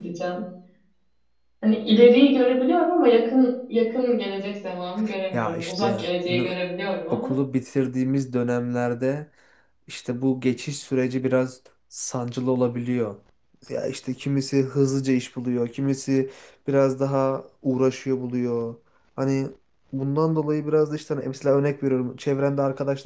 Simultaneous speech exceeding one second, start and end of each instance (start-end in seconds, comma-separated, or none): 5.3-6.5